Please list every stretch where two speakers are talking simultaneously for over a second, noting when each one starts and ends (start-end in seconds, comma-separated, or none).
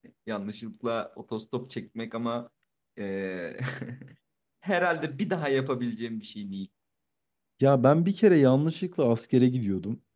none